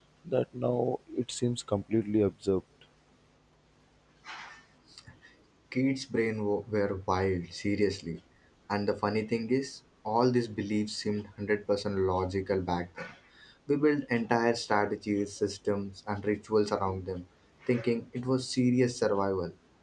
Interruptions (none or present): none